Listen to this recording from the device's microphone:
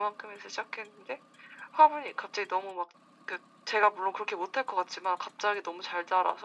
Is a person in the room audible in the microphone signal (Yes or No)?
No